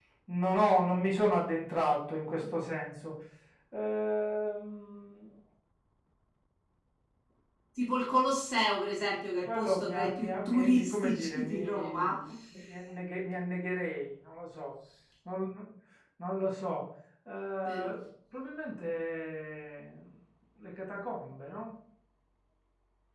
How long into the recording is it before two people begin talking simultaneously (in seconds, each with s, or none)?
9.4 s